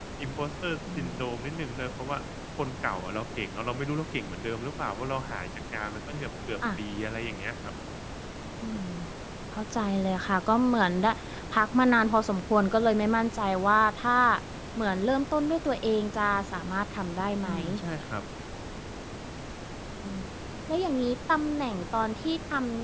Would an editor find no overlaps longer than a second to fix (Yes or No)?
Yes